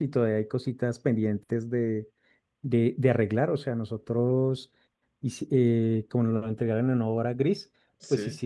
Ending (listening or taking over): listening